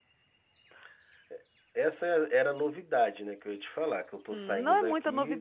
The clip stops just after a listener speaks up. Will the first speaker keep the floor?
No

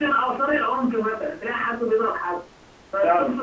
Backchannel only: Yes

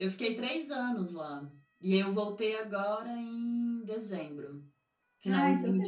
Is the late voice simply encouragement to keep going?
No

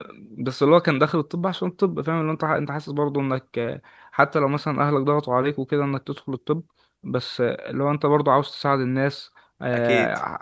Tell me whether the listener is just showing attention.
Yes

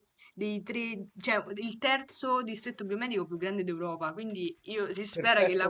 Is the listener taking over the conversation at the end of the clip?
No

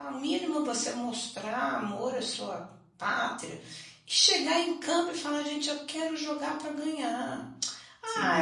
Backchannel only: Yes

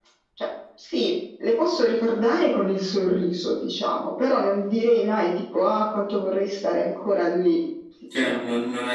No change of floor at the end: No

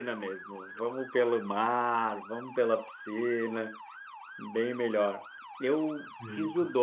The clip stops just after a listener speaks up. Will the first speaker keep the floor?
Yes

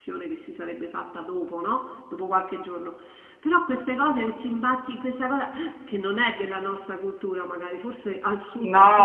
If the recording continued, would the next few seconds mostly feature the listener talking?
Yes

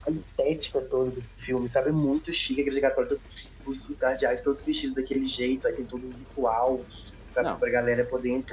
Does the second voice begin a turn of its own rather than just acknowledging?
No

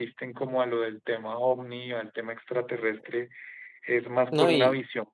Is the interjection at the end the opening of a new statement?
Yes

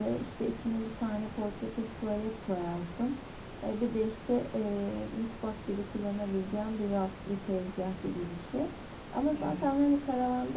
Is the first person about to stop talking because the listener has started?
No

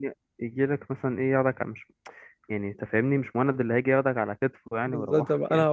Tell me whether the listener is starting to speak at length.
Yes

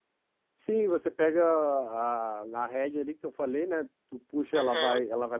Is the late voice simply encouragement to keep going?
Yes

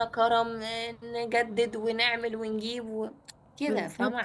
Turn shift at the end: Yes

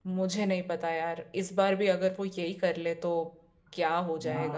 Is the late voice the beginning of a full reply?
Yes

